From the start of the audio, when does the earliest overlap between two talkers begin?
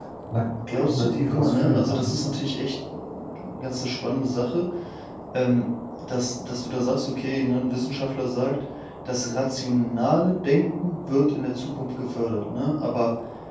0.7 s

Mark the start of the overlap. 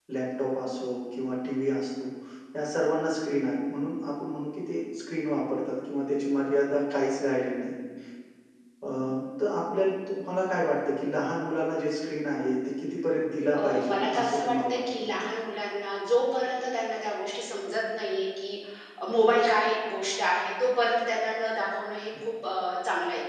13.5 s

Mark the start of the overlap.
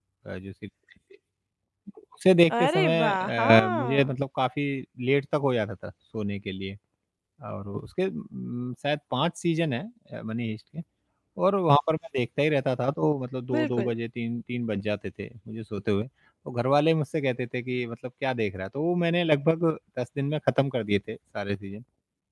2.6 s

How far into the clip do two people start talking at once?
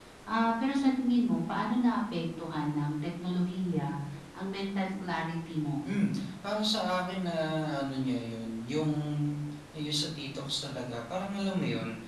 none

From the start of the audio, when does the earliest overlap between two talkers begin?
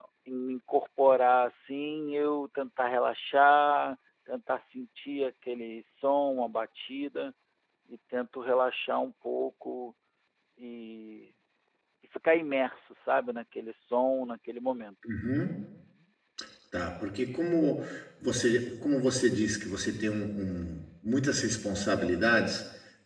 none

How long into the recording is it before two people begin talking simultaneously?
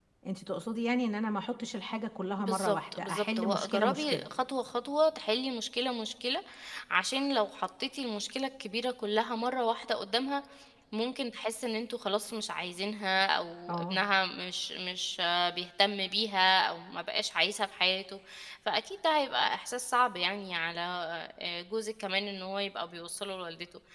2.4 s

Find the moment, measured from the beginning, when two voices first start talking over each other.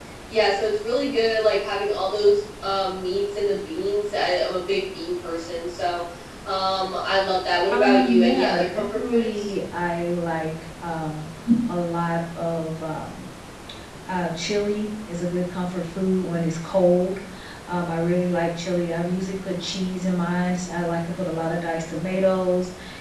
7.7 s

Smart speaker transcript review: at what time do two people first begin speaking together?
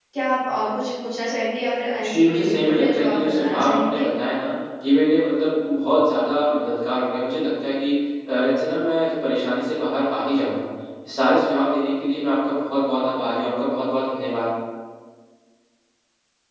2.0 s

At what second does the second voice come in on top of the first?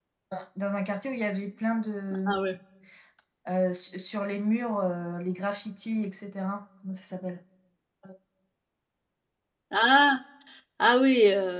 none

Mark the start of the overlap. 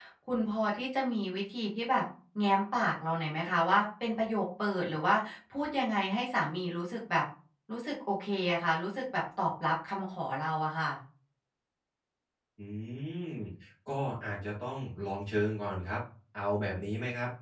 none

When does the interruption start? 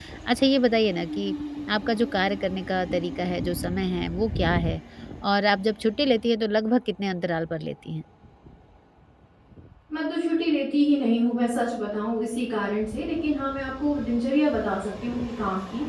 none

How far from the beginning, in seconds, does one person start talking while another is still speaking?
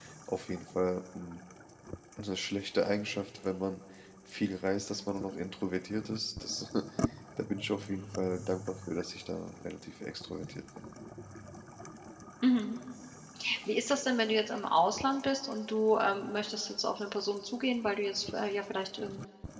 none

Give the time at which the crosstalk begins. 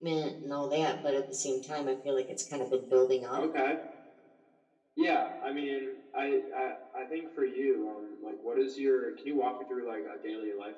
none

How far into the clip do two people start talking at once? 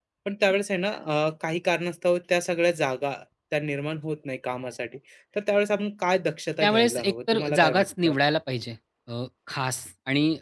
6.6 s

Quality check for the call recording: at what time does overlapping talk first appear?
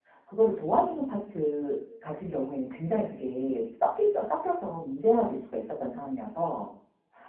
none

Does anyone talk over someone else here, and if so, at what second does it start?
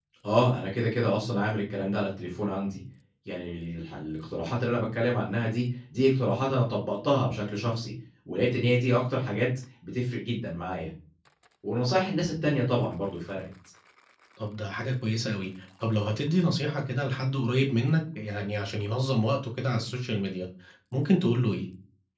none

